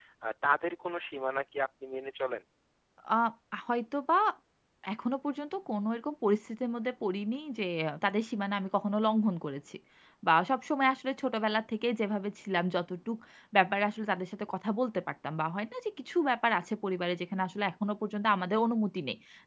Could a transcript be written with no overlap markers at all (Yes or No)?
Yes